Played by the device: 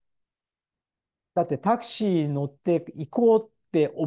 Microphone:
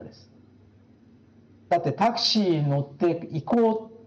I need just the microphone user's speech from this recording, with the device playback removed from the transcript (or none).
none